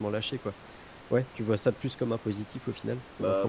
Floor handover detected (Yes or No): Yes